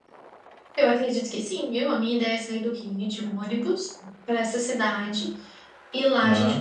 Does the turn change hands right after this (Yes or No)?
No